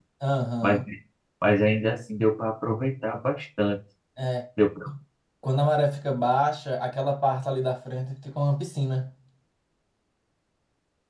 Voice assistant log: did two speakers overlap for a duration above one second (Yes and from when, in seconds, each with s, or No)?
No